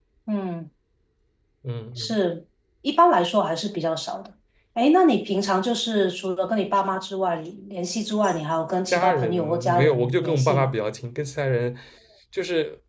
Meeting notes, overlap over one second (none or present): present